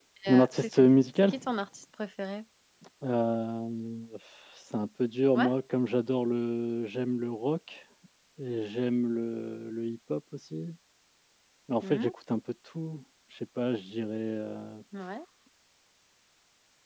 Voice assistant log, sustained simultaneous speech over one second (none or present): none